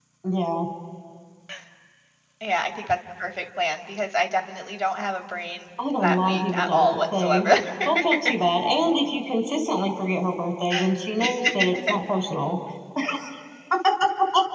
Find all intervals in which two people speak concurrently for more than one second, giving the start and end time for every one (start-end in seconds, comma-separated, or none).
6.0-7.5